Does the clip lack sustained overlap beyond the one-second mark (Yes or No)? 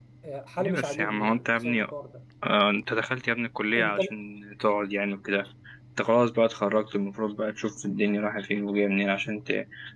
No